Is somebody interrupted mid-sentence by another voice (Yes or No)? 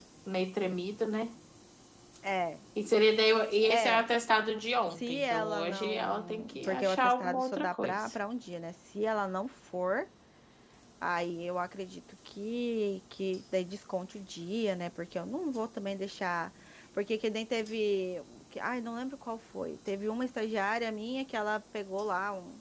Yes